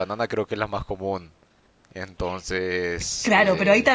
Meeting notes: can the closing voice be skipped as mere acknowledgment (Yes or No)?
No